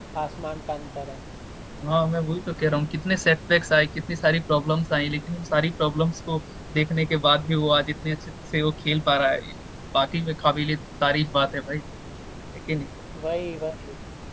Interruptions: none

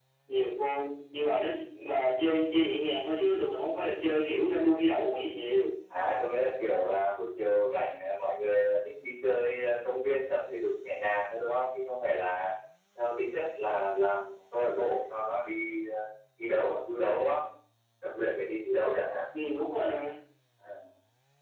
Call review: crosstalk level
none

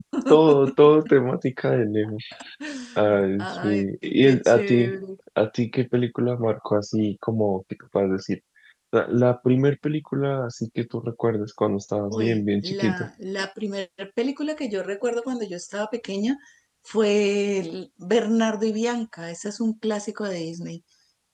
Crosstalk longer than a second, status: present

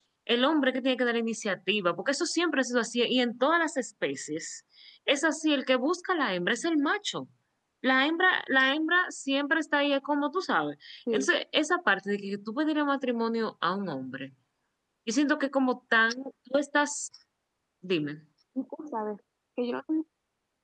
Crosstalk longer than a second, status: none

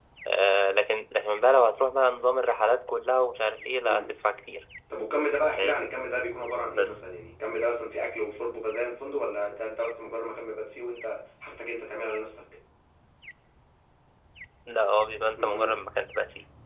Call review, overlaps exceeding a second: none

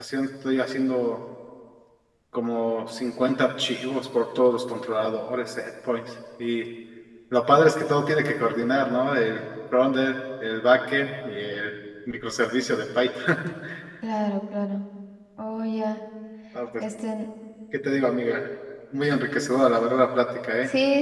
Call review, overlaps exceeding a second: none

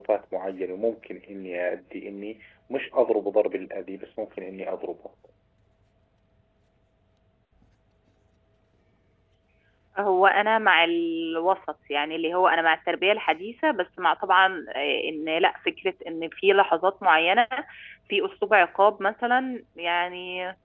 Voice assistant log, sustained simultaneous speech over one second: none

